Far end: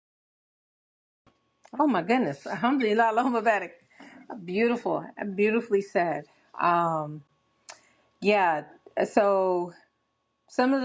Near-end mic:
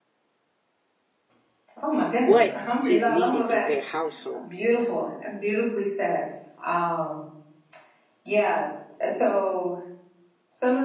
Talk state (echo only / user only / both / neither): both